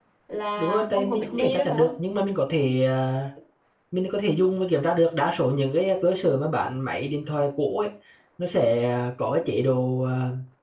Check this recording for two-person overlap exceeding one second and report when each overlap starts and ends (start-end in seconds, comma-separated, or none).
0.6-1.9